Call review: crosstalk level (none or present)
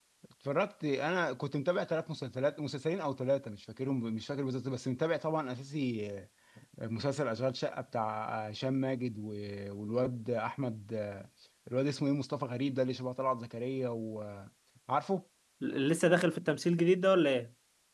none